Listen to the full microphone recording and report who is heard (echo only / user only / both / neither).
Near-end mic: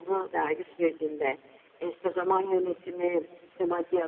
echo only